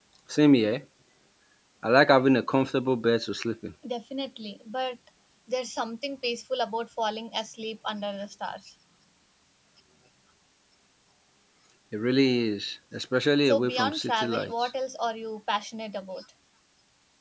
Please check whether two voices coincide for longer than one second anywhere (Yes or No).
Yes